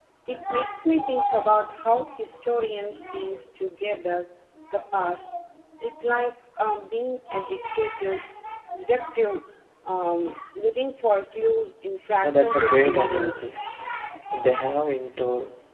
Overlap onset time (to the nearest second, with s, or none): 12 s